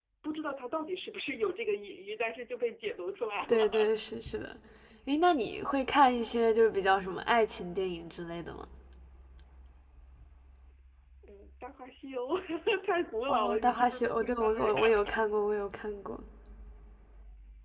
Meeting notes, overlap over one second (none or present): present